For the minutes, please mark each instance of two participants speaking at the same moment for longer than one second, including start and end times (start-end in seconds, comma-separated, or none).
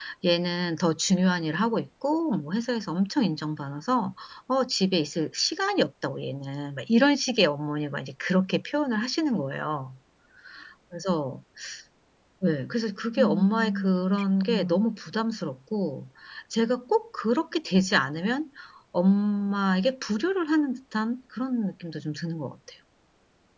13.2-14.8